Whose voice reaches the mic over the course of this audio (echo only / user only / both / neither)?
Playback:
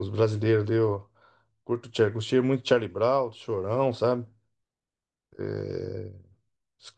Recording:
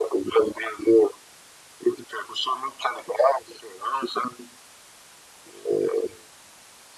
echo only